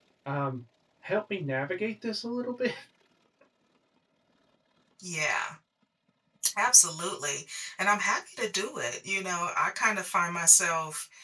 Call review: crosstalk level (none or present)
none